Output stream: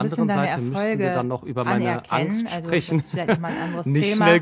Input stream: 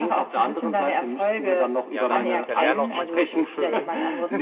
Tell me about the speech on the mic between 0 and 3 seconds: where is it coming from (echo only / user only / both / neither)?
both